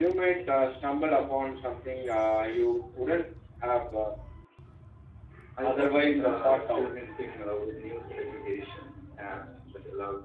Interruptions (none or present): present